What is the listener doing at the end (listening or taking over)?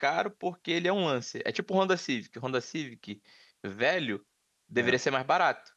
listening